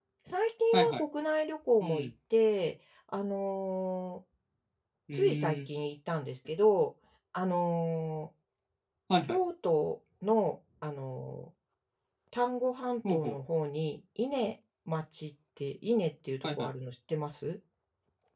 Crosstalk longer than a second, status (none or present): none